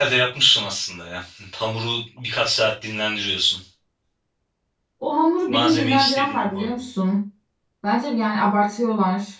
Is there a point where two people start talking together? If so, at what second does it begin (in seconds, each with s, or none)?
5.5 s